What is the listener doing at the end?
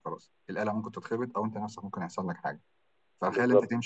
listening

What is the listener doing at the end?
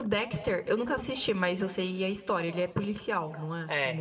taking over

